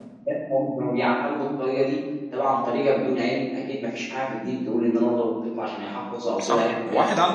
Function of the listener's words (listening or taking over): taking over